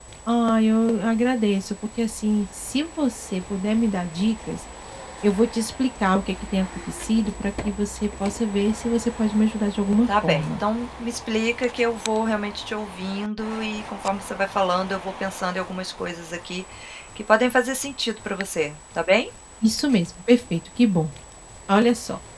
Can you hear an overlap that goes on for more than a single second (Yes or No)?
No